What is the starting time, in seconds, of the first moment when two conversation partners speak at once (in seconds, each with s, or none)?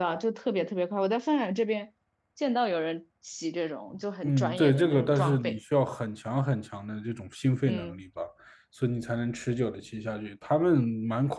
4.2 s